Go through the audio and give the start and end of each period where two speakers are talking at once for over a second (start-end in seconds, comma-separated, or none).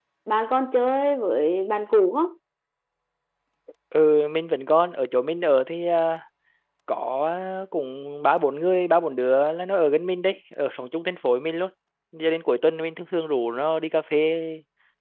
none